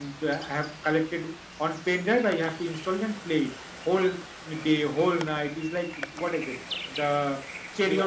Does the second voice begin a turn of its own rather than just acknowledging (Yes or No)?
No